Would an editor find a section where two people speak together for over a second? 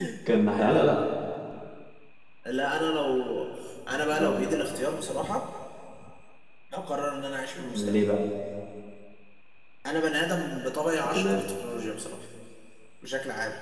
No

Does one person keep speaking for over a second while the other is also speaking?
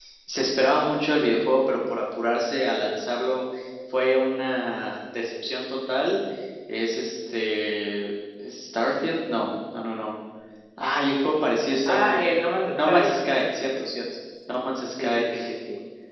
No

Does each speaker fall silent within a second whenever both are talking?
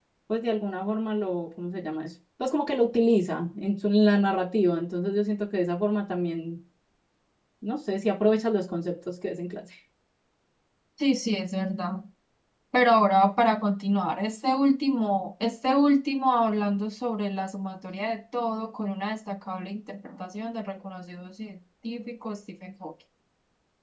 Yes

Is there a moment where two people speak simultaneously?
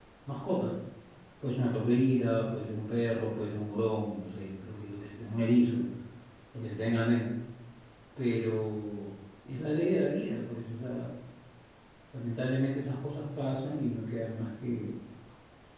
No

